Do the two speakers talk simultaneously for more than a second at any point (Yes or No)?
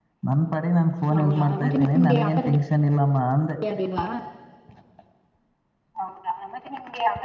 Yes